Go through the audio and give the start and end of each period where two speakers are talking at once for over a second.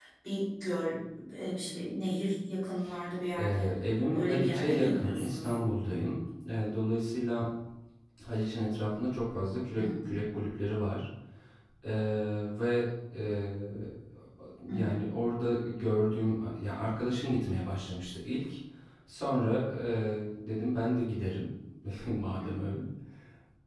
4.1-5.5

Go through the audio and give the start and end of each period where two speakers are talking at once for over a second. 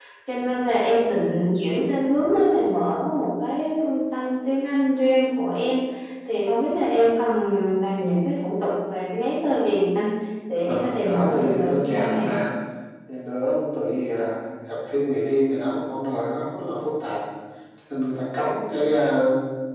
10.6-12.3

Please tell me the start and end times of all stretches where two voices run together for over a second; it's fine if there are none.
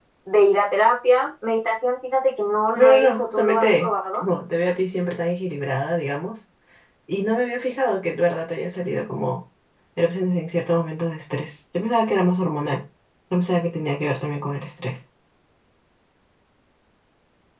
2.8-4.2

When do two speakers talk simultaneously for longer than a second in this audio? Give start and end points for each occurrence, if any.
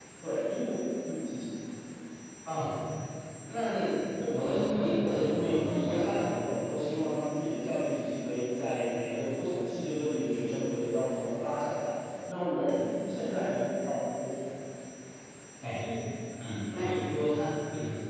4.3-6.3

